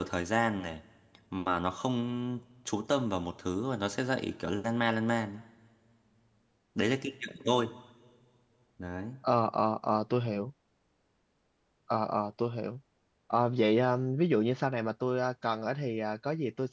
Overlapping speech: No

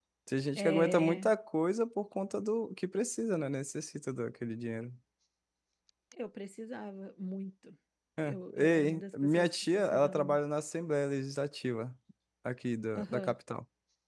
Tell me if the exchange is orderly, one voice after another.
No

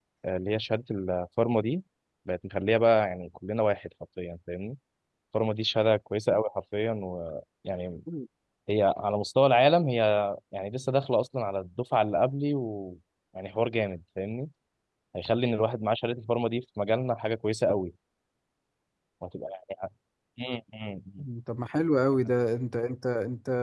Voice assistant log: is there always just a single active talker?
Yes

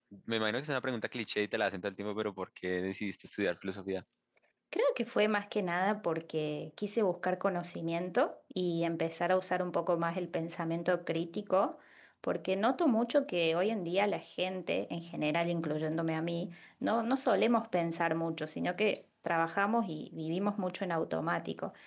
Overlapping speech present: No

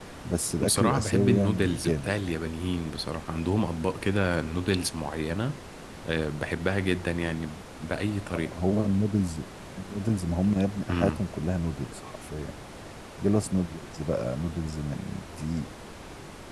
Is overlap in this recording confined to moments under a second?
No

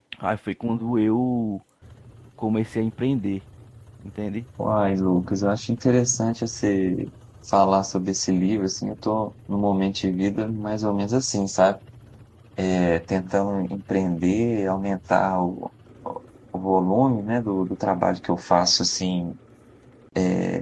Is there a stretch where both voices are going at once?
No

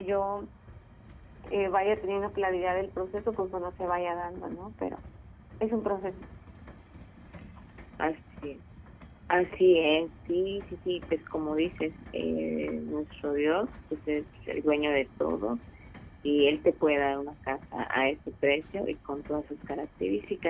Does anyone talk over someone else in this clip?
No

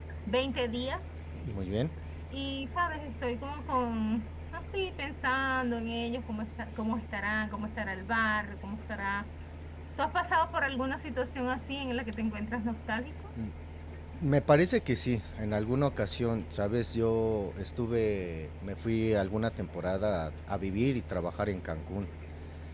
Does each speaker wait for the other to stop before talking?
Yes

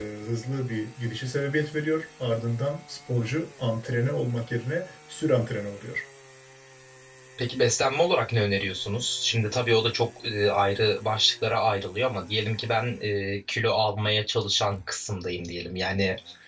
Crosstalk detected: No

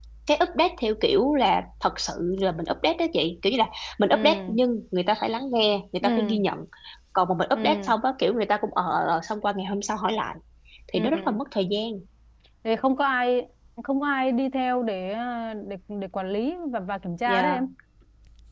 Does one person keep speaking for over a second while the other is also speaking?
No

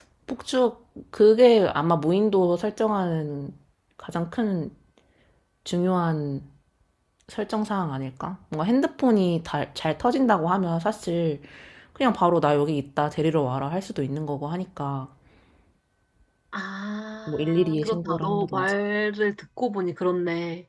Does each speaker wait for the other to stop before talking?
No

